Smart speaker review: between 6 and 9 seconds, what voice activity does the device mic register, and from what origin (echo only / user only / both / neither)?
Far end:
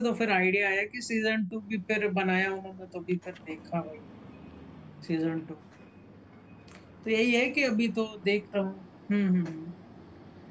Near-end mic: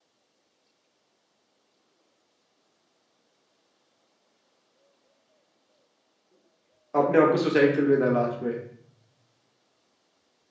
user only